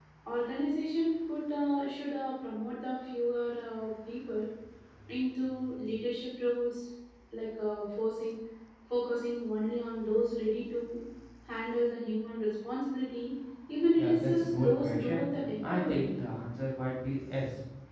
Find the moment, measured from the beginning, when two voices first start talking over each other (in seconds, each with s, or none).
13.9 s